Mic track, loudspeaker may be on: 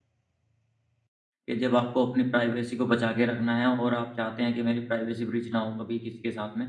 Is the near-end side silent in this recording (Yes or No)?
No